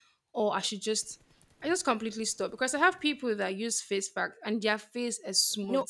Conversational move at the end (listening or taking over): listening